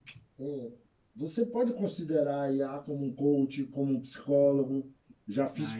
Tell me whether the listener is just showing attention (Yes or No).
No